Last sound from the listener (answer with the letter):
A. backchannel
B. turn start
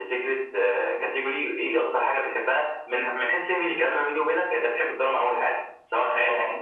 B